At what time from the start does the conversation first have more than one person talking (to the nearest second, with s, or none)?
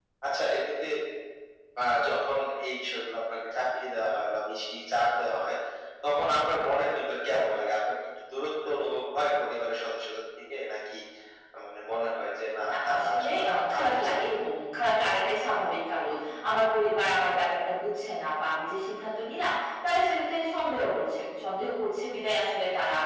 13 s